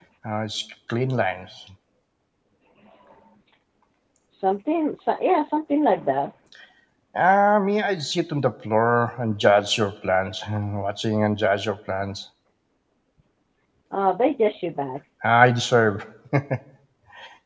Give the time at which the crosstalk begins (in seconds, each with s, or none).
none